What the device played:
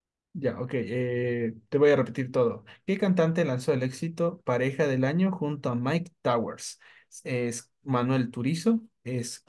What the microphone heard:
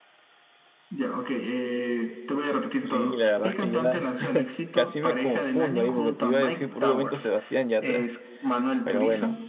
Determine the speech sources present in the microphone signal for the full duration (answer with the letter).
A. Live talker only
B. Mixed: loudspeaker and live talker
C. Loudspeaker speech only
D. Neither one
B